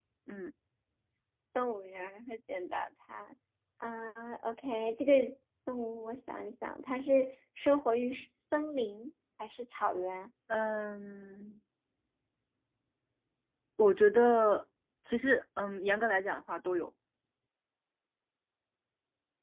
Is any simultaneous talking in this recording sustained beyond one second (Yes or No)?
No